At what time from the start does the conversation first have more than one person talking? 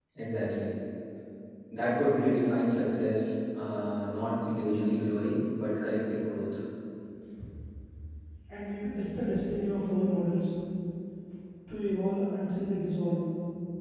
none

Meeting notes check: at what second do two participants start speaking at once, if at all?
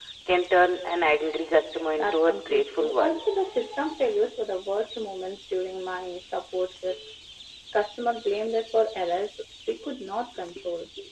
2.0 s

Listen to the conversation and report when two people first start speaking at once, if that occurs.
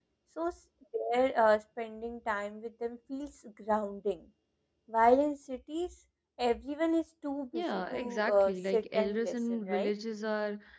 7.5 s

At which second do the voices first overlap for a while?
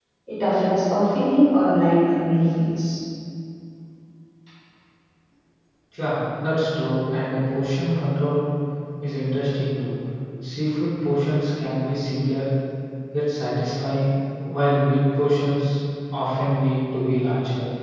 none

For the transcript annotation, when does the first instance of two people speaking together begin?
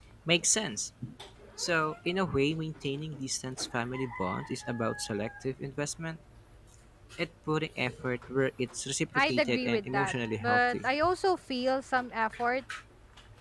9.1 s

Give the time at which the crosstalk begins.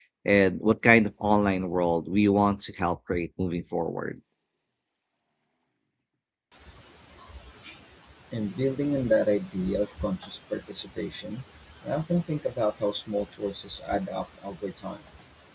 none

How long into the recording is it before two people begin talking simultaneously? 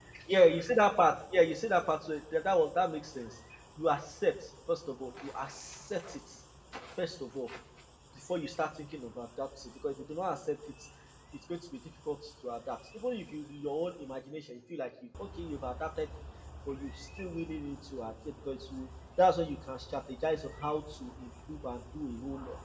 none

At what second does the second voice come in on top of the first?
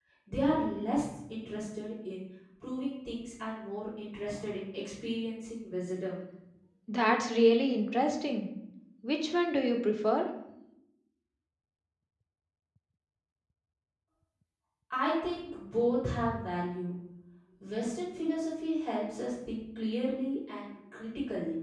none

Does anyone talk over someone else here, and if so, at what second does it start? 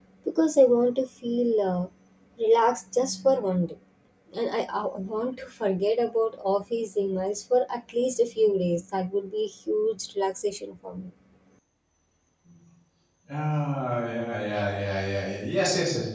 none

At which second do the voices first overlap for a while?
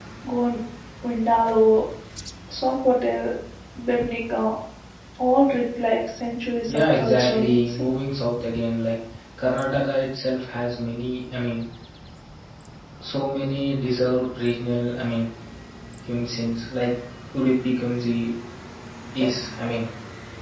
6.7 s

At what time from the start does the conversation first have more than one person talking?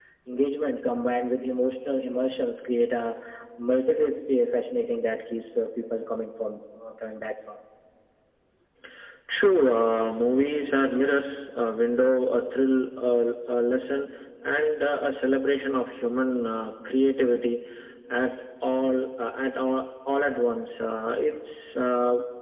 none

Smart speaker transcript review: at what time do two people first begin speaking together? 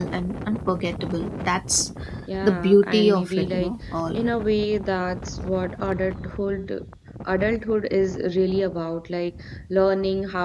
2.4 s

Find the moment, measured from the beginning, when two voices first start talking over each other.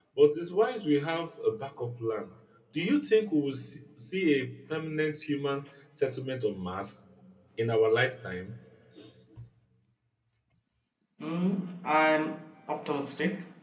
none

